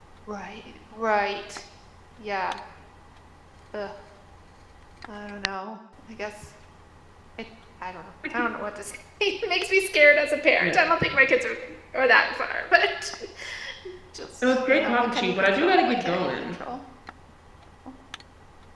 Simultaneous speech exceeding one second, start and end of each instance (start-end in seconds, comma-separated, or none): 14.7-16.5